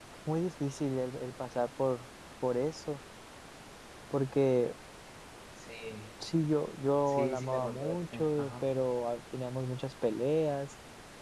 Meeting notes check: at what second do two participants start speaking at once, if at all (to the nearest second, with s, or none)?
7 s